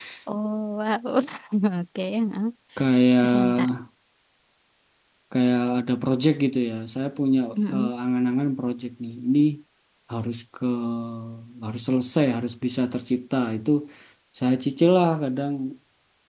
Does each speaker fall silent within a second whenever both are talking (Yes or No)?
Yes